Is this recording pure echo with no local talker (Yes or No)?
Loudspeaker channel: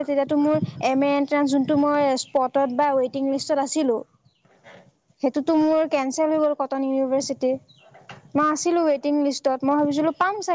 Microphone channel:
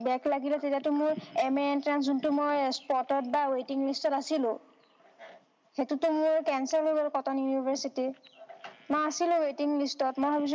Yes